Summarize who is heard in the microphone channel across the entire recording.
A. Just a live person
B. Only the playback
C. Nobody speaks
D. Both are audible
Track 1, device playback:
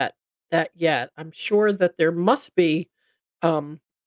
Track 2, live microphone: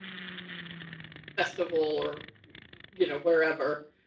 A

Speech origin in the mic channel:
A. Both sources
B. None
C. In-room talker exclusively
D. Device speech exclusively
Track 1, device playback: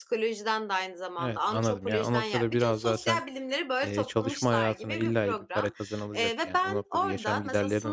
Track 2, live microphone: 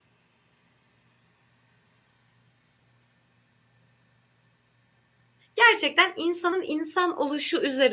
C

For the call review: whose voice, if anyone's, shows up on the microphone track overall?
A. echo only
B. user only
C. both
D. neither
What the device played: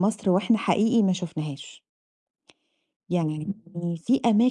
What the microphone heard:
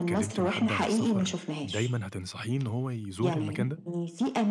C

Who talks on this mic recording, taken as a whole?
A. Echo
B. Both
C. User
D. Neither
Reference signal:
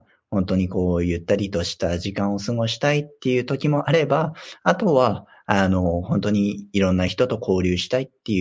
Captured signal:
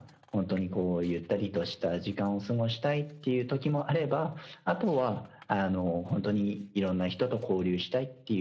A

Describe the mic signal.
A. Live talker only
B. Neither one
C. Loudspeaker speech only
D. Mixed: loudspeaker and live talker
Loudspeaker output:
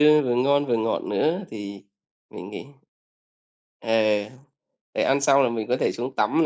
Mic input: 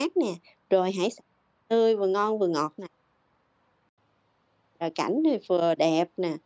A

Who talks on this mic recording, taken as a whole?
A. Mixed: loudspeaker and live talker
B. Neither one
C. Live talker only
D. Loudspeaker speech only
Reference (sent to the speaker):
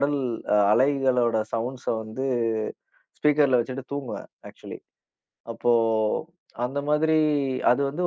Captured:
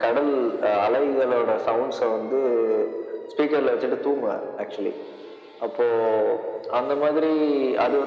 D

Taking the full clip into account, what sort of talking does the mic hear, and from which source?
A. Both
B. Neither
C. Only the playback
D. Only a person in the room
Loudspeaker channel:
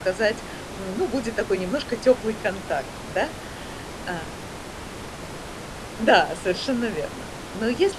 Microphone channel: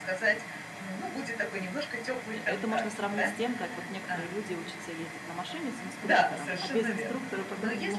A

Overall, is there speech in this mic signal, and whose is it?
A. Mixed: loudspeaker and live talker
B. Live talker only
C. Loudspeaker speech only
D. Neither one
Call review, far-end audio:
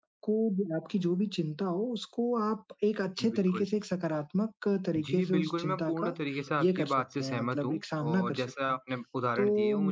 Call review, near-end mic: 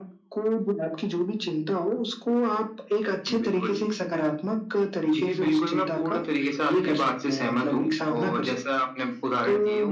C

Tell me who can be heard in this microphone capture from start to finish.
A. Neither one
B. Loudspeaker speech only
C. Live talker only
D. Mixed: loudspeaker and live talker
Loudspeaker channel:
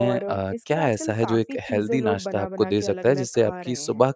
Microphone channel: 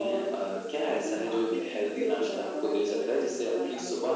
D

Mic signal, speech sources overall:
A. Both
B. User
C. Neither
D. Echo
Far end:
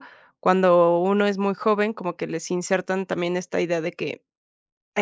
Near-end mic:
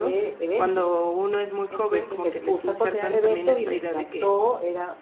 A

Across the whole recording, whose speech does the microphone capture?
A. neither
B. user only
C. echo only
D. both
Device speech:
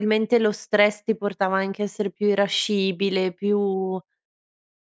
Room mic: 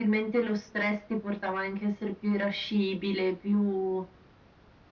C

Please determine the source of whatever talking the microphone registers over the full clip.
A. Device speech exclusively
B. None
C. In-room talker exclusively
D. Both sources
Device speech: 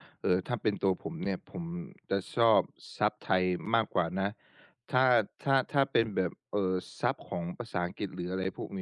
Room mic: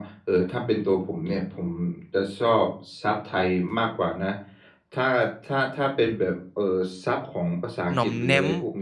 D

